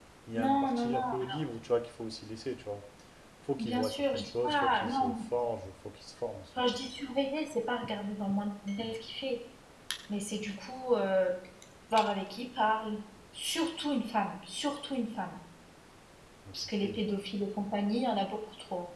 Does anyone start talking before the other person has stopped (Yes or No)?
Yes